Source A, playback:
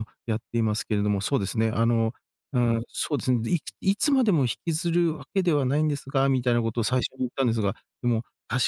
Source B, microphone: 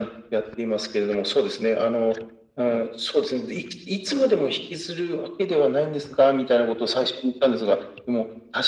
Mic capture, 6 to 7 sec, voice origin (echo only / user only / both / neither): echo only